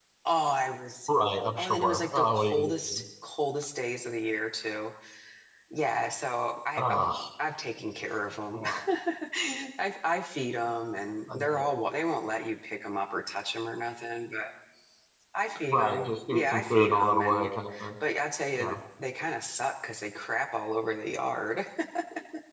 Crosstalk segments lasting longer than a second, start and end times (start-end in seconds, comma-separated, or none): 1.6-3.0, 15.7-17.5